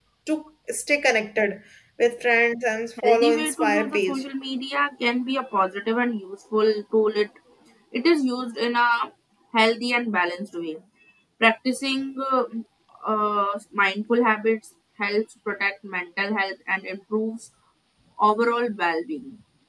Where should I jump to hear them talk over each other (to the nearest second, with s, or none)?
3 s